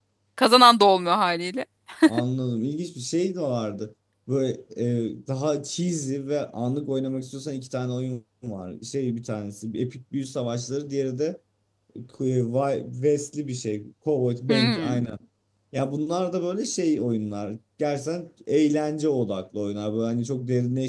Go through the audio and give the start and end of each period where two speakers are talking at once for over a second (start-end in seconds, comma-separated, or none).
none